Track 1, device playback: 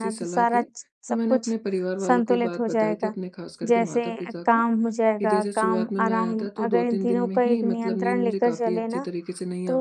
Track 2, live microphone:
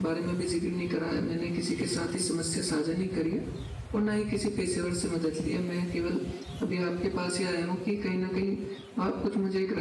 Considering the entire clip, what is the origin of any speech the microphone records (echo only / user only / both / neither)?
user only